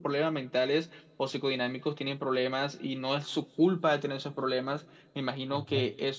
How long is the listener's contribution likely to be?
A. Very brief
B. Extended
A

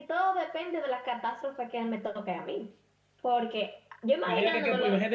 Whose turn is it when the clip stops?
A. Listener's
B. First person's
A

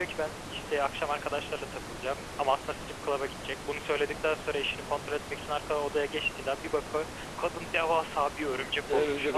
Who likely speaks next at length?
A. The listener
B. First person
A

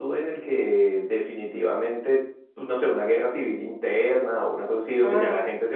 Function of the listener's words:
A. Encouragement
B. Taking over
A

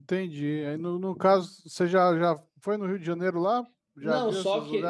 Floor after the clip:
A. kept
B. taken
B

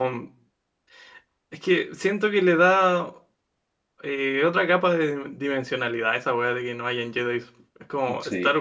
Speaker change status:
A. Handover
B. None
B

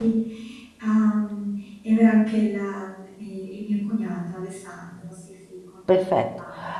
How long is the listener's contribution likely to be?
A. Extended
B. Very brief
A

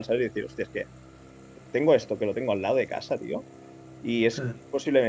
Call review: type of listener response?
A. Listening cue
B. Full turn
A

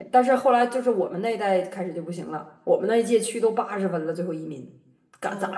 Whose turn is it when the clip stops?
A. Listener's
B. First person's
A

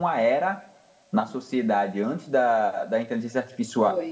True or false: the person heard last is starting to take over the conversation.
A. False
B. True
A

